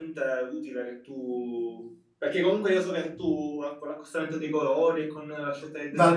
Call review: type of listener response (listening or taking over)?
taking over